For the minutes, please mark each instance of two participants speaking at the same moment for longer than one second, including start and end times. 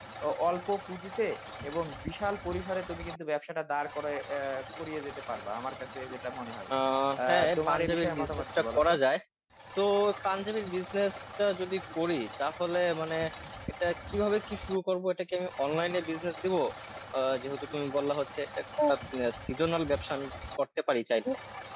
7.3-8.9

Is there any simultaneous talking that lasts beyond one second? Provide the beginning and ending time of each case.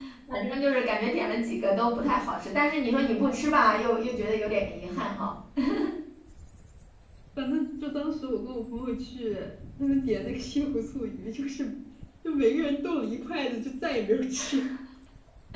none

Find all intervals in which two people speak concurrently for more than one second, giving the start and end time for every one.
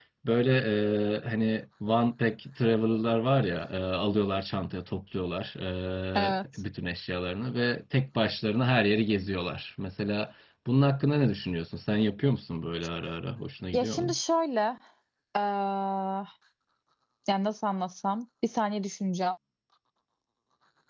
none

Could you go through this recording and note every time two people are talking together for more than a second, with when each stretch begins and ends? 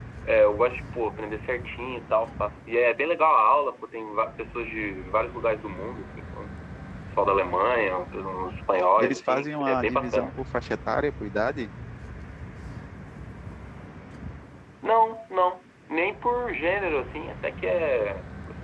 9.0-10.3

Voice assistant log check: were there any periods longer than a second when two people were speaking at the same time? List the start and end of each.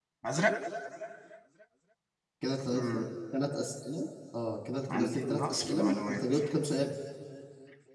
4.9-6.2

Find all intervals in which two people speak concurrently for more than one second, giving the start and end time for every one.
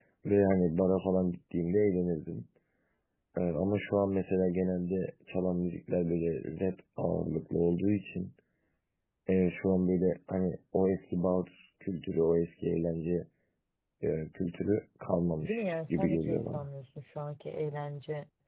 15.4-16.6

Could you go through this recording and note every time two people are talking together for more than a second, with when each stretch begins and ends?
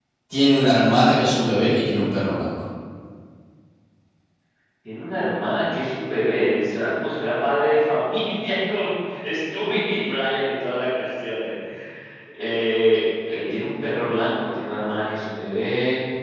none

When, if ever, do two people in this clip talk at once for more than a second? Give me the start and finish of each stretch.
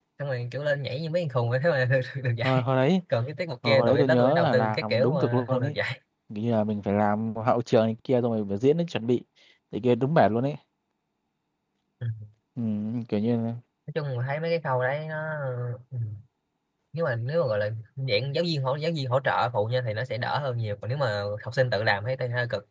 3.6-5.8

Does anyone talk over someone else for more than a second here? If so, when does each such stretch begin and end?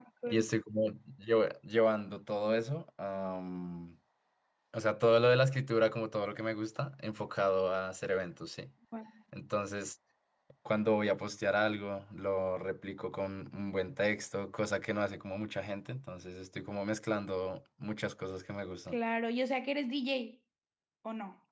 none

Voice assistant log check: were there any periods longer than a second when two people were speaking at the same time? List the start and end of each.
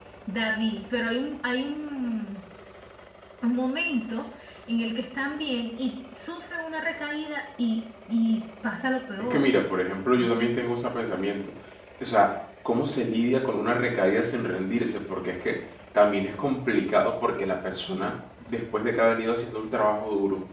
none

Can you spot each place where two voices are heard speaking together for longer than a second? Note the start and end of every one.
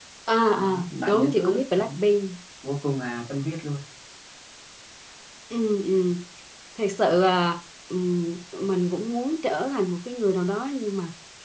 0.5-1.9

